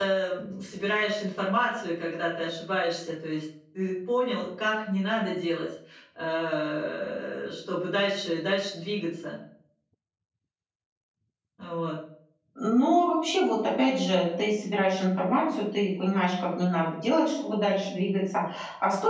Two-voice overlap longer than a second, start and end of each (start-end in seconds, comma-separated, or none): none